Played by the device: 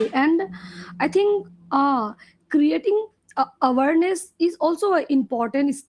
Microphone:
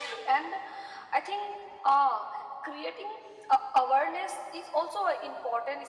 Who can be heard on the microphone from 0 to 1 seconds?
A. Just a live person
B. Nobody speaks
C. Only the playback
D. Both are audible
C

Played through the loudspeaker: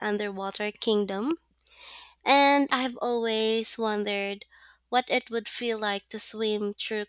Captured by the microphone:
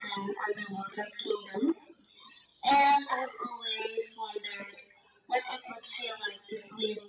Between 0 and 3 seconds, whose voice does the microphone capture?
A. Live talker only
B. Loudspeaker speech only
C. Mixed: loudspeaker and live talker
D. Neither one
B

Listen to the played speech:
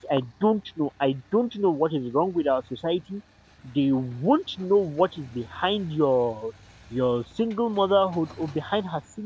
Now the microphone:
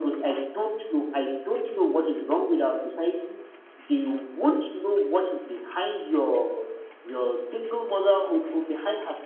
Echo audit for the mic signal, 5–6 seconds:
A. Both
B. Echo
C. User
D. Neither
B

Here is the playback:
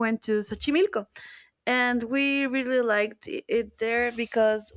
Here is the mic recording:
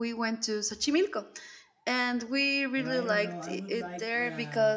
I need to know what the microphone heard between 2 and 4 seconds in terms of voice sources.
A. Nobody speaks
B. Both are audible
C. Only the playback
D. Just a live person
B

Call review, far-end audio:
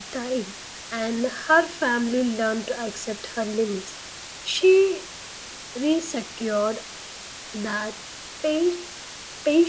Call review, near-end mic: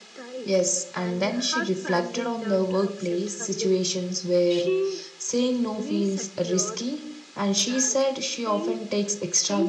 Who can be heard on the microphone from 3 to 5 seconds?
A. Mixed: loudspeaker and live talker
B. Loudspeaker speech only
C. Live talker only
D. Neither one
A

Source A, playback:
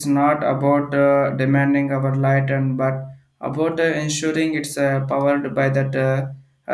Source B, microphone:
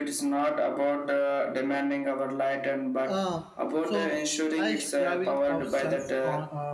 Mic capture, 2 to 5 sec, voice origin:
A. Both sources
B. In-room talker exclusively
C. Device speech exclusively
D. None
A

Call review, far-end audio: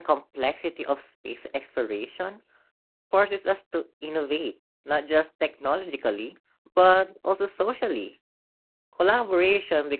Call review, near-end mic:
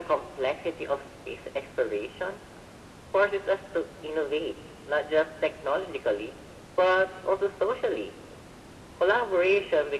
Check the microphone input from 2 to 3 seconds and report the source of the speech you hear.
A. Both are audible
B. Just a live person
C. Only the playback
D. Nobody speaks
C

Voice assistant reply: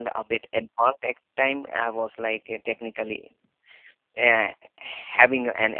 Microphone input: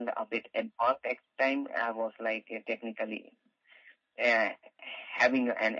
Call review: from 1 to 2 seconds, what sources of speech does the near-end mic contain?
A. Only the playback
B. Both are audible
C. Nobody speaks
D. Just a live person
A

